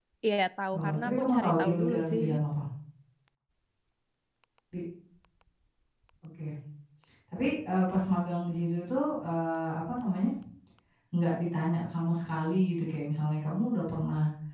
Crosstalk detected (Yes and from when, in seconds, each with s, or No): Yes, from 0.8 s